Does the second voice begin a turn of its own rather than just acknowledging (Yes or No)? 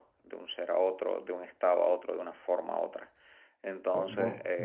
Yes